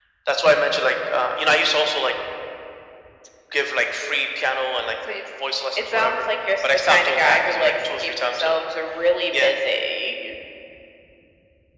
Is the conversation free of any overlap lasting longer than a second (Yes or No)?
No